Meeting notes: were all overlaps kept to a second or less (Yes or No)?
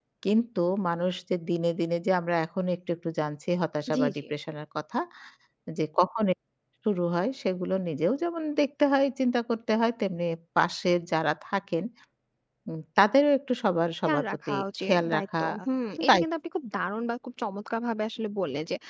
No